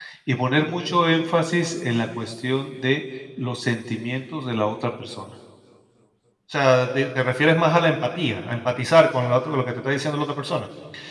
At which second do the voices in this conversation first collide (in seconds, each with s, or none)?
none